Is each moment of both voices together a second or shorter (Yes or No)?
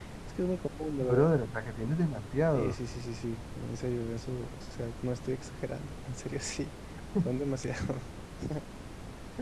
Yes